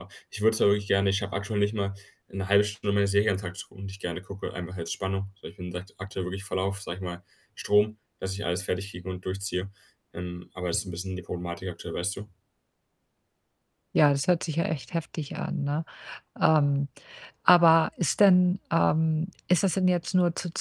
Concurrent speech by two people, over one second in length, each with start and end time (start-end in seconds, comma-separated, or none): none